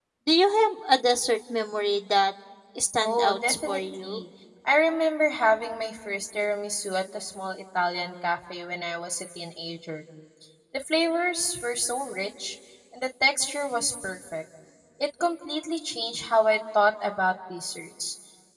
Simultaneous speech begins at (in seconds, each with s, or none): 3.0 s